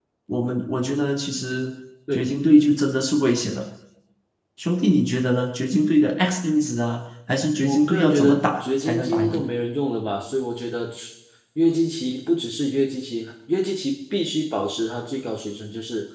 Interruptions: present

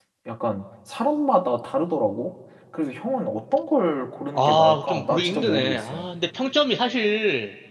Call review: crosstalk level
present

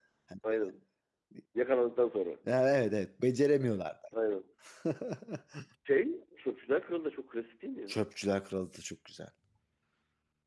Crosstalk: none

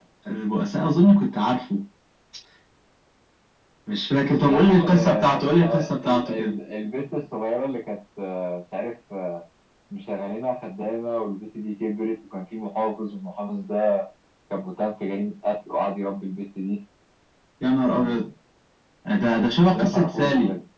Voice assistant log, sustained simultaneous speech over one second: present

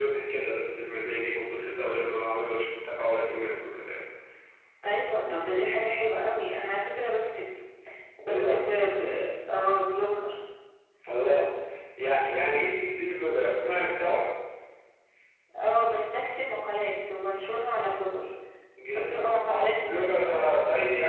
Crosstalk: present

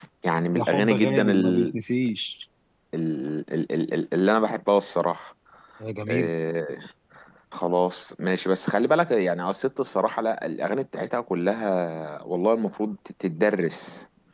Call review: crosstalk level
present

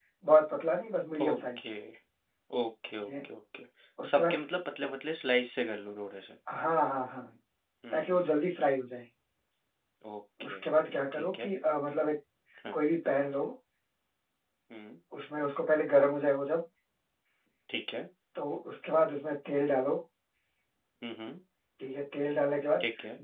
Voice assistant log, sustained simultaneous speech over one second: none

